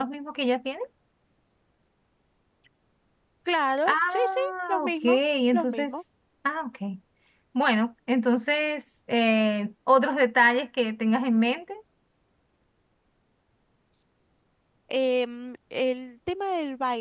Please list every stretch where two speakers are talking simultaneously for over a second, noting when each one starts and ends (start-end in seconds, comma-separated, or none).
3.9-5.2